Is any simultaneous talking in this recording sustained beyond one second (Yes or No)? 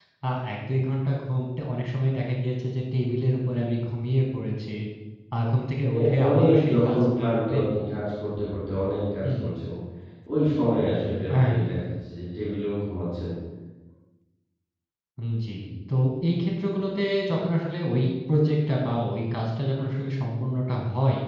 Yes